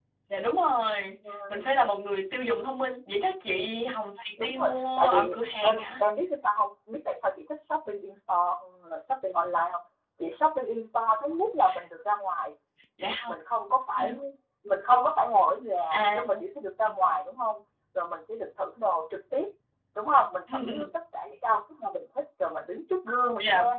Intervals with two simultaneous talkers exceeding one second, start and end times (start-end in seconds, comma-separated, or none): 4.4-5.8